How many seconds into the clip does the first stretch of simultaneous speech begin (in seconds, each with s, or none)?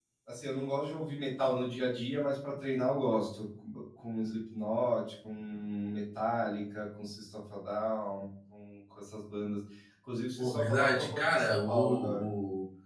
10.4 s